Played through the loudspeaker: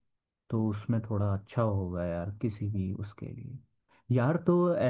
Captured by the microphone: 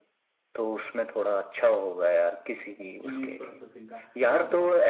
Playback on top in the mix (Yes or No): Yes